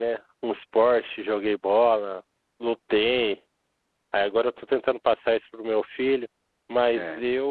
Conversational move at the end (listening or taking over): listening